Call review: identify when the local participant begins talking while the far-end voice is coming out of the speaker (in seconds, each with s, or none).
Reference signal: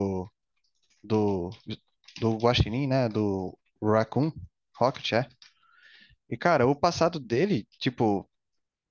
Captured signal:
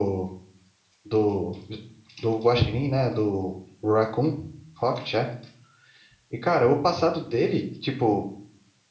none